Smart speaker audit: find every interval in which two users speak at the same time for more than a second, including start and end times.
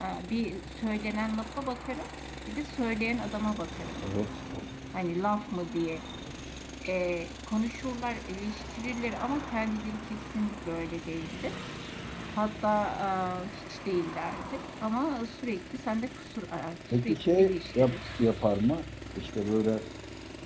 16.9-18.3

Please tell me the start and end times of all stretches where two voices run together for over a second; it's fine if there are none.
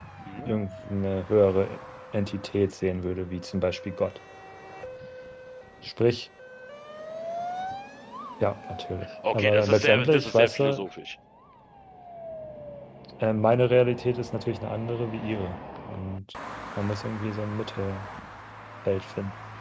9.3-10.8

